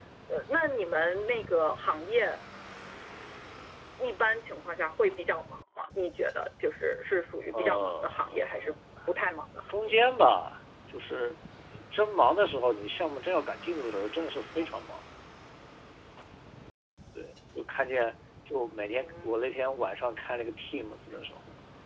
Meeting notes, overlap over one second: present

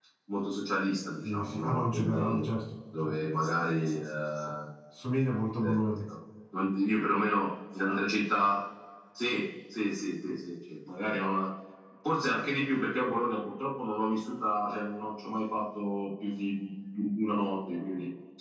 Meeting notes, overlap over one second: present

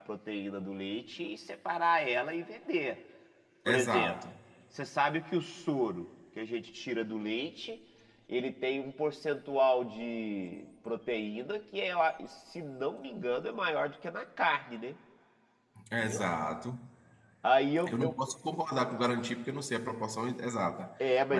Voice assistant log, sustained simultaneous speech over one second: none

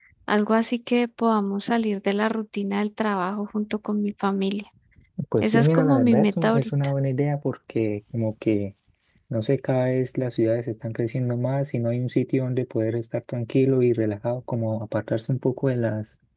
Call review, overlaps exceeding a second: present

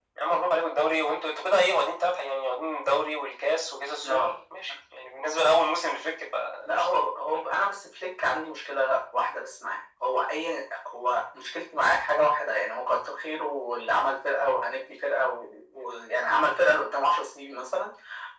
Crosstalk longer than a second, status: none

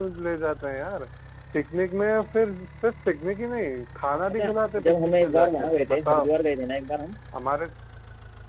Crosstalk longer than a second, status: present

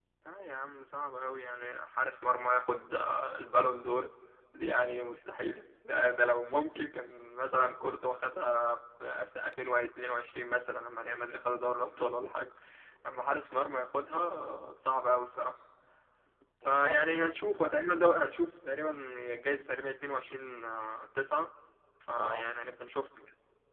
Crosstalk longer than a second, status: present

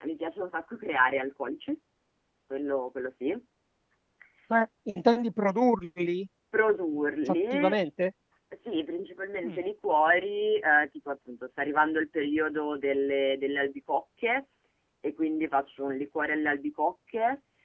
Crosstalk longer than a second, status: none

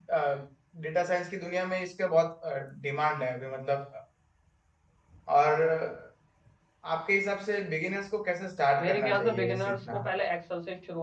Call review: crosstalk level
present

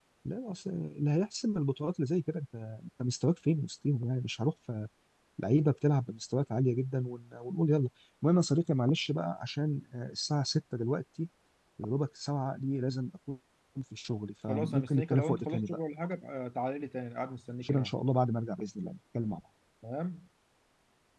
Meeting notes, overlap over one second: present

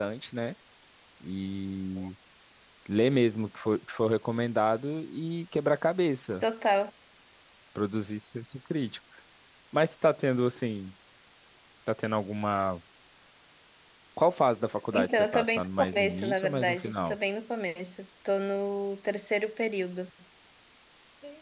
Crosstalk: present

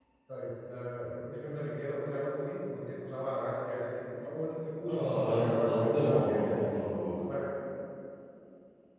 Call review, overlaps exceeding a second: present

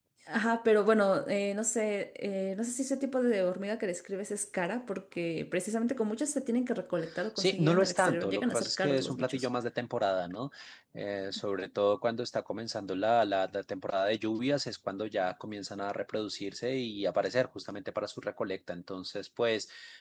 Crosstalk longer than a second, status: present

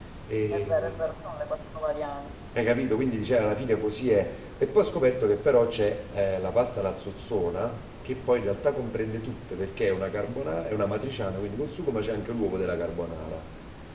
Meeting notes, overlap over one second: none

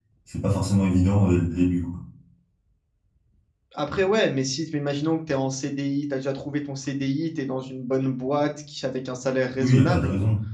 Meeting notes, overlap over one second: none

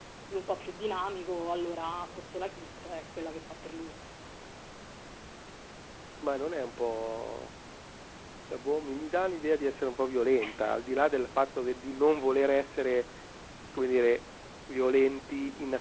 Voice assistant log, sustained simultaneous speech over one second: none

